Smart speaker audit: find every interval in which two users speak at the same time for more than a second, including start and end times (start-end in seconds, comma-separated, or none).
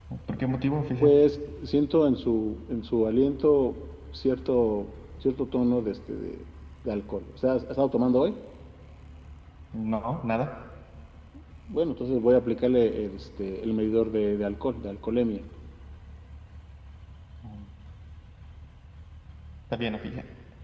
none